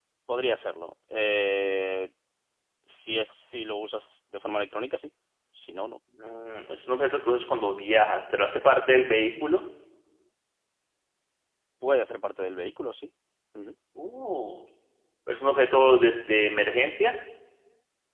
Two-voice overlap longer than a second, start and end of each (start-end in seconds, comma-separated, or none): none